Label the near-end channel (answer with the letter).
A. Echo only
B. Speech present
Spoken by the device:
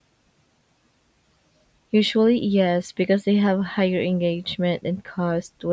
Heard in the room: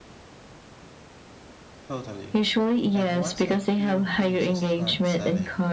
B